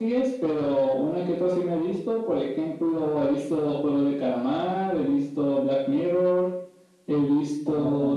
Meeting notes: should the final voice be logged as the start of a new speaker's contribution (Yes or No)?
No